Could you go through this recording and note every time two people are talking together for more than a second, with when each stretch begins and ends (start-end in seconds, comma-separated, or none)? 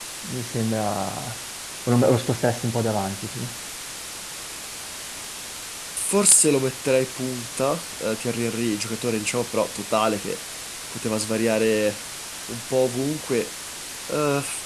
none